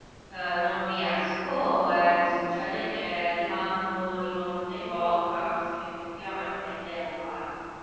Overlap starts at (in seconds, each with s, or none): none